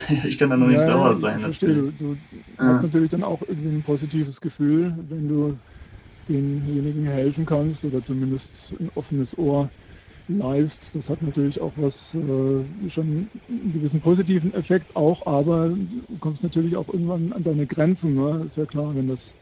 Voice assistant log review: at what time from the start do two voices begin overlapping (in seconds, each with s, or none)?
0.6 s